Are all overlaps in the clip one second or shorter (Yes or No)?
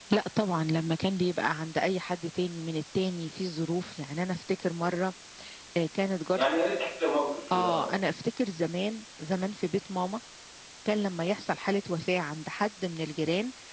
Yes